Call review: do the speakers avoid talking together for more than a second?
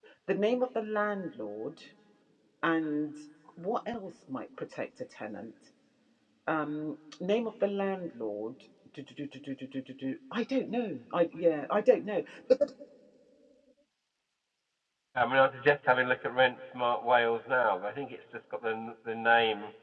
Yes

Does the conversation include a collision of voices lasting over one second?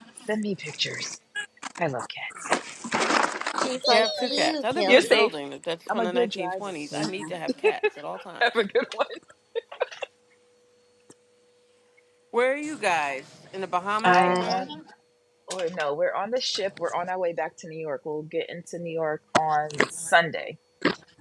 Yes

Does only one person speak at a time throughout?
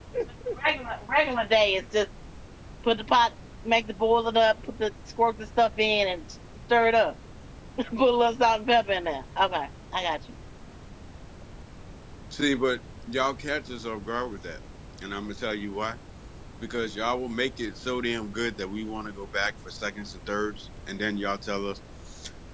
Yes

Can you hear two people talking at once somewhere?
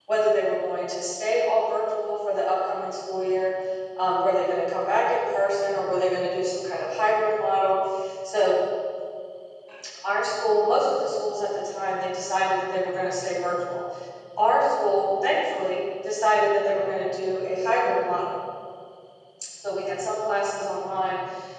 No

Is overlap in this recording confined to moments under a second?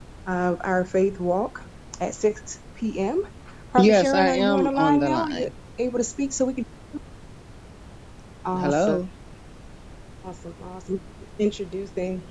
No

